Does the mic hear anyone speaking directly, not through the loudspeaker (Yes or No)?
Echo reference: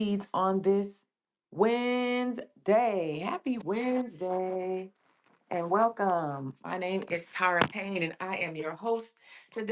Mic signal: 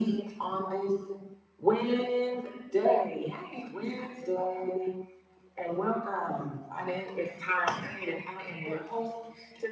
Yes